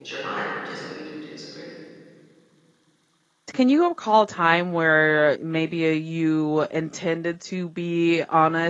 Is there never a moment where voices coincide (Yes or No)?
Yes